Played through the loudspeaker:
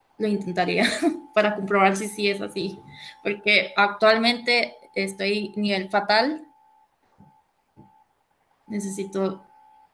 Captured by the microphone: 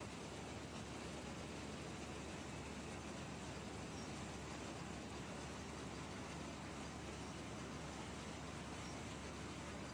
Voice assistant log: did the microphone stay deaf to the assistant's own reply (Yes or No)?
Yes